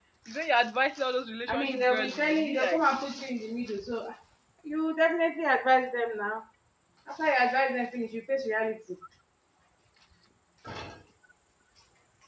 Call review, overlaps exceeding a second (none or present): present